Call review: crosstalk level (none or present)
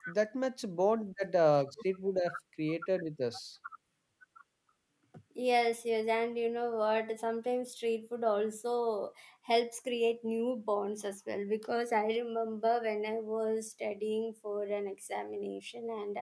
none